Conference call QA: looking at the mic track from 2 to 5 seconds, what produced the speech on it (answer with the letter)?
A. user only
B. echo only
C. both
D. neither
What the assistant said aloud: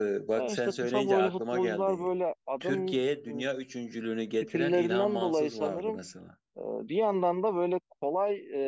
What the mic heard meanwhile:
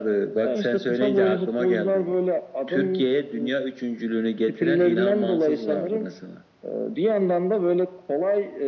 B